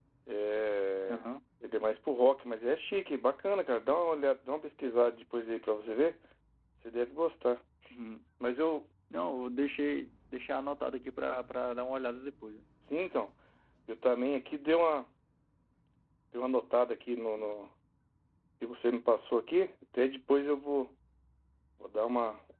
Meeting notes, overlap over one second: none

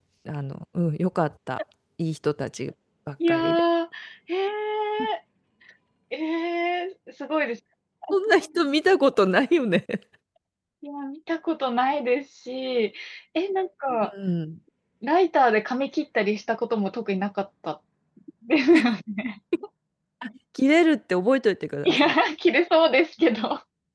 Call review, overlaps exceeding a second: none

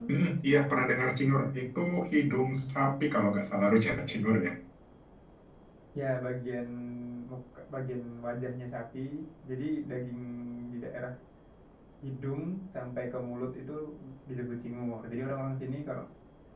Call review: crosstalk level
none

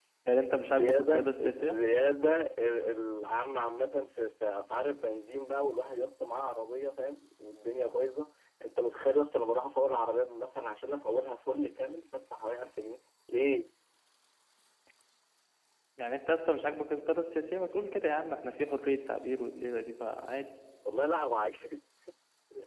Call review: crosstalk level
present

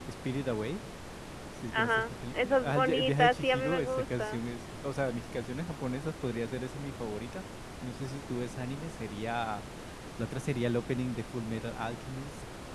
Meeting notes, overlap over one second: present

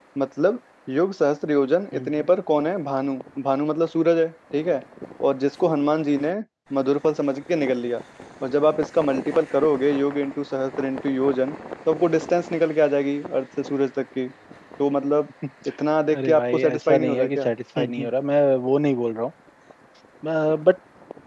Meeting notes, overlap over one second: present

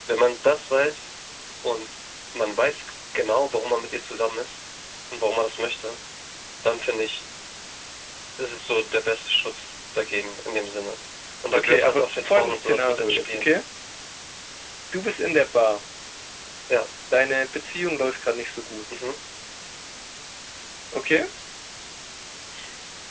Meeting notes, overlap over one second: present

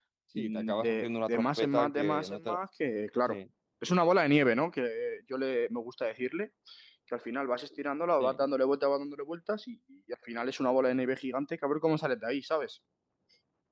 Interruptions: present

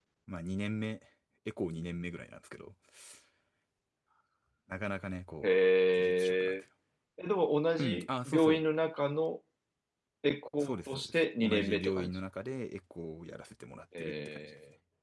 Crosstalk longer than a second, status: present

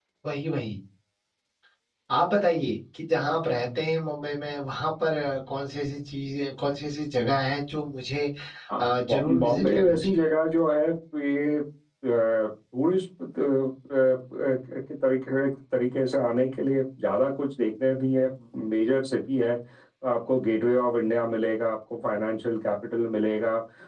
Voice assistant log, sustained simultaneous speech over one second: present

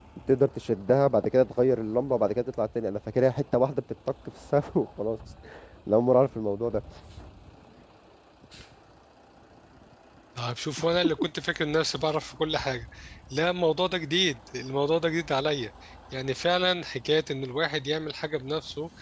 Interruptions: none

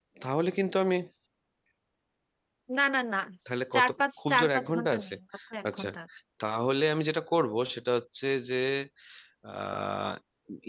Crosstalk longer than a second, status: present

